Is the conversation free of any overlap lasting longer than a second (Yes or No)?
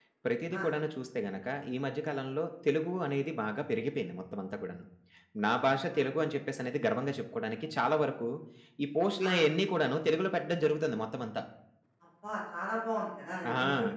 Yes